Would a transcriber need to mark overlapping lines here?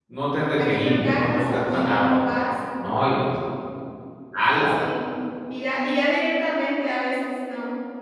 Yes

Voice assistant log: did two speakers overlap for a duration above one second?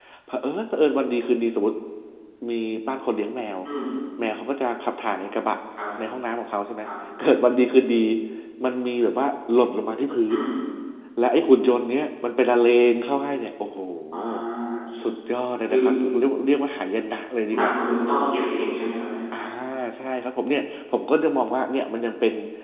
No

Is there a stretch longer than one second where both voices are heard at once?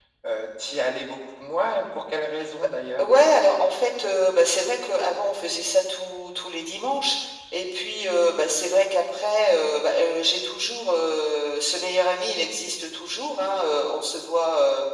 No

